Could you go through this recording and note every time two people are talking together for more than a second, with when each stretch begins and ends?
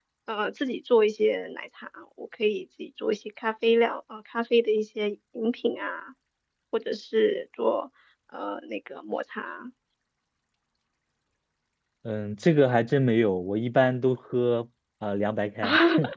none

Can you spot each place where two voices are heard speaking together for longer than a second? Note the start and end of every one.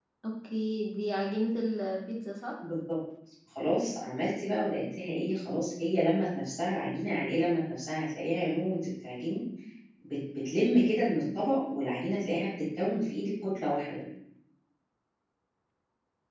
none

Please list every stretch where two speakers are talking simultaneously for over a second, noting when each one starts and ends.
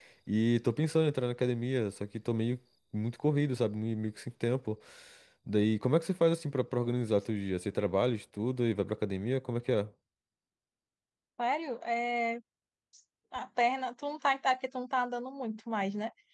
none

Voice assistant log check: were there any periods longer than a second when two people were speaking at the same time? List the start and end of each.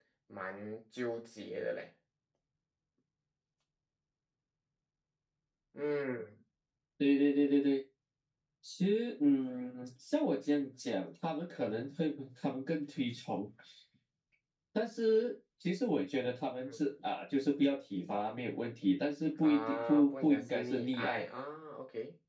19.4-21.3

